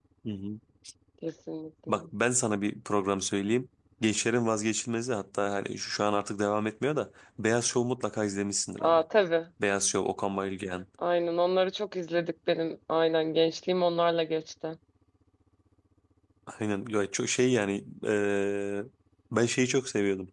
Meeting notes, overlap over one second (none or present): none